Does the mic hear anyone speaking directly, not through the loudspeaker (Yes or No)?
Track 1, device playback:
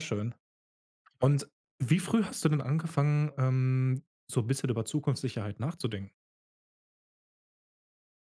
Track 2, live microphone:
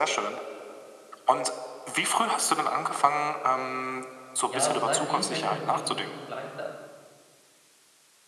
Yes